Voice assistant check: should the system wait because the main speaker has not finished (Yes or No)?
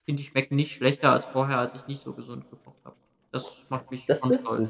No